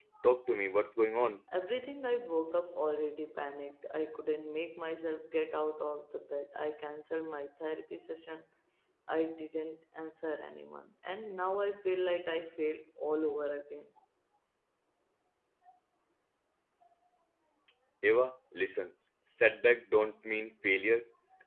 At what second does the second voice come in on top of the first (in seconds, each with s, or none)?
none